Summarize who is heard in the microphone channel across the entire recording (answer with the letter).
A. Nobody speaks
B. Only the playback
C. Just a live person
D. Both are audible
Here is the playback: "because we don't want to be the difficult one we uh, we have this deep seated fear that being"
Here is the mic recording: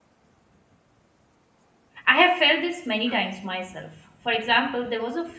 C